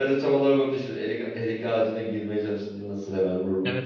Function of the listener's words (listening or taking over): taking over